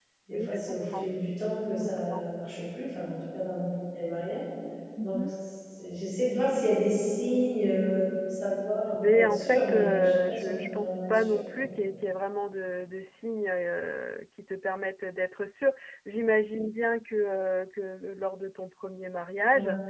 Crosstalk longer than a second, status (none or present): present